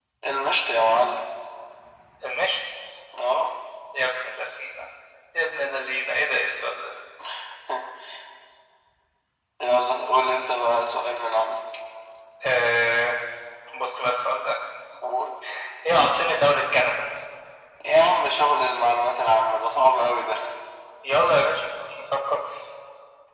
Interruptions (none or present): none